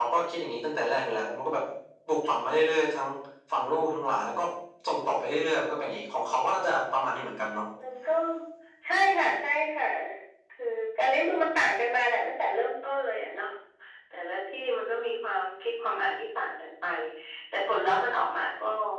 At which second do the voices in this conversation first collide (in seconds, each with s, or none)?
none